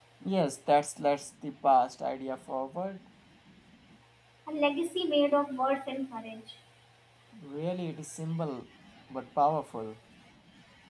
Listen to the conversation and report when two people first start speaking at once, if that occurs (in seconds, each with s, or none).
none